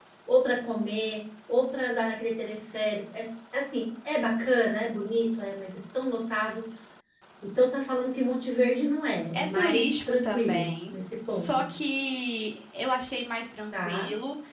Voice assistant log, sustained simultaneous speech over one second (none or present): present